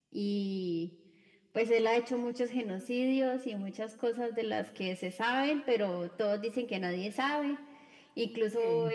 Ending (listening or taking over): listening